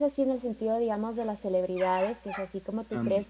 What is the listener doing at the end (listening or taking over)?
listening